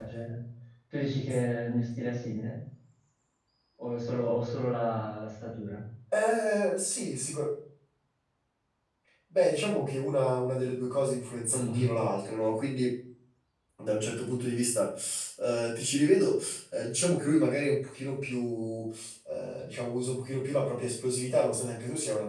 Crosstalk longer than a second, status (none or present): none